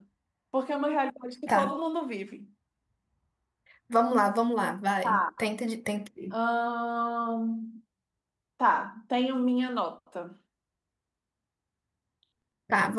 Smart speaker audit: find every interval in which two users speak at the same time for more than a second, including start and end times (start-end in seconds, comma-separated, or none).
none